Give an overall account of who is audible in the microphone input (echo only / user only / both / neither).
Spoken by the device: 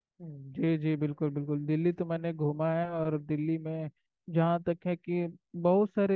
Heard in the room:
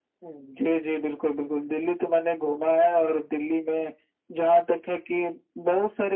echo only